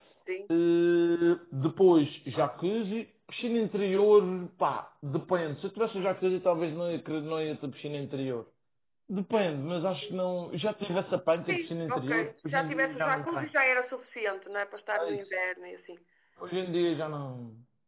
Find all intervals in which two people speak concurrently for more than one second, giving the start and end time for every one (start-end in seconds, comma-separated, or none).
11.5-13.4